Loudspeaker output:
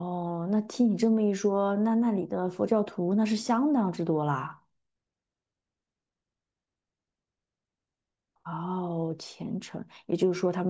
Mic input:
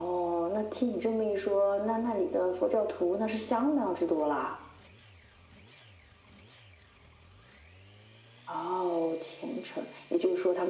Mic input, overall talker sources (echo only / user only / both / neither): echo only